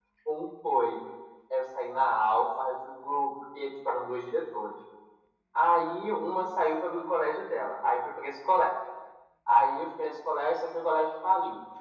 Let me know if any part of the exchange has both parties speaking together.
No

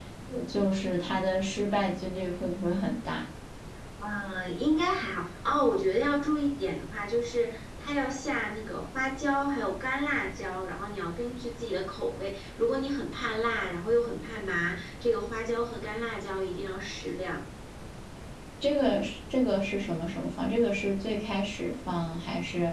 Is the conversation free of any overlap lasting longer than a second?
Yes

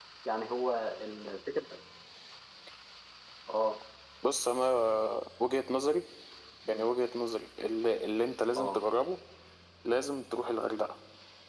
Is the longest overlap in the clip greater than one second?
No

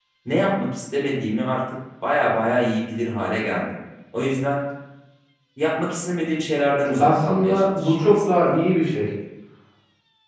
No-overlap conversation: No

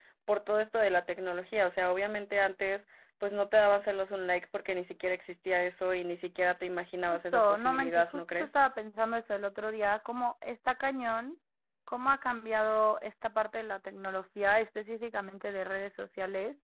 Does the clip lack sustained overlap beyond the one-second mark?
No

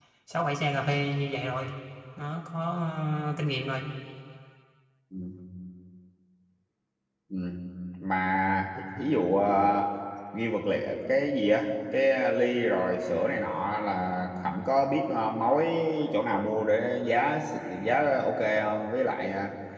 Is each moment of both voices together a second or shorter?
Yes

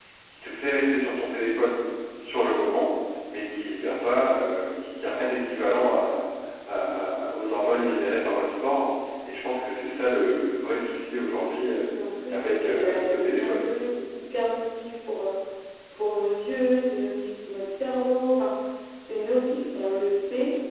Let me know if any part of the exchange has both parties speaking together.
Yes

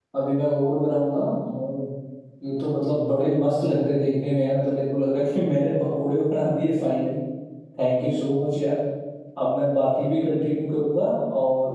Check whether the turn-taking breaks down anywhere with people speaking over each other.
No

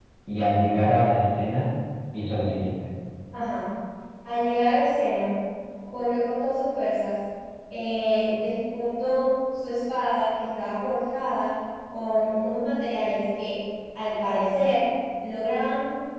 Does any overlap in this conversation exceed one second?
No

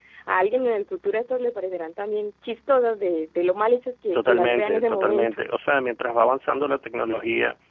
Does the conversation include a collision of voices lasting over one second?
Yes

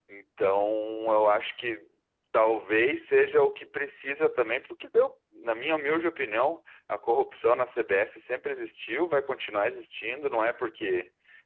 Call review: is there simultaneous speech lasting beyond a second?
No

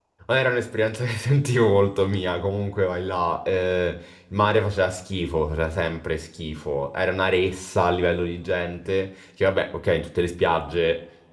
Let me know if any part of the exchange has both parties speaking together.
No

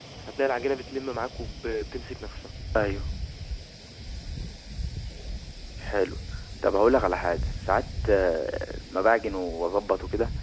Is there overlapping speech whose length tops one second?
No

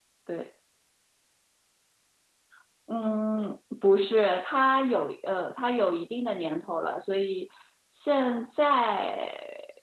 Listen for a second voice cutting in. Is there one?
No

